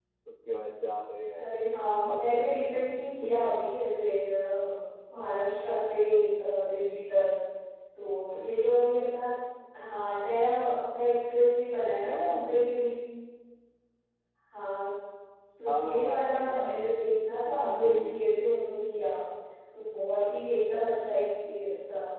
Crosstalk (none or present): present